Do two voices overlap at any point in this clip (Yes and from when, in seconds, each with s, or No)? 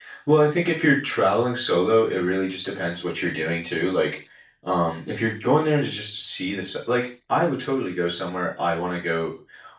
No